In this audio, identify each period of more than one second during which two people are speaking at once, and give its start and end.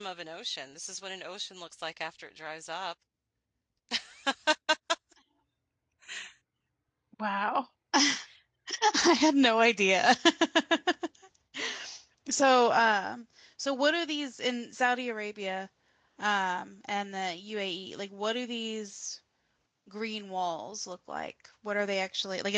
none

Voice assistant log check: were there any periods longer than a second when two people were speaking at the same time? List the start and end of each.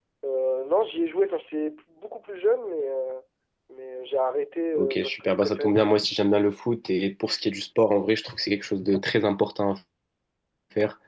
4.8-6.0

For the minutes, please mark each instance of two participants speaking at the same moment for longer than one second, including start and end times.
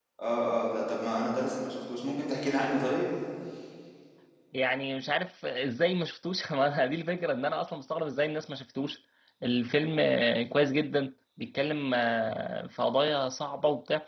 none

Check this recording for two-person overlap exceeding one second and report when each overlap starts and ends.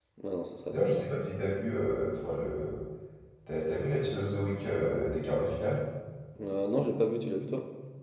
none

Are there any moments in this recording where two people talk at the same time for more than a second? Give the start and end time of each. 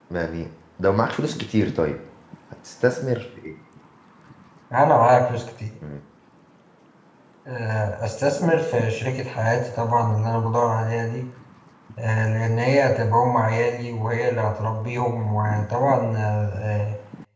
none

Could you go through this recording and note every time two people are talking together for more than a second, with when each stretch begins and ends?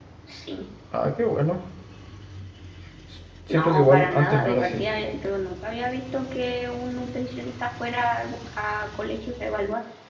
3.5-4.9

